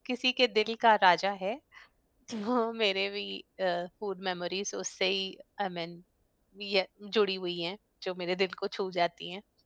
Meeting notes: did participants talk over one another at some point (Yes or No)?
No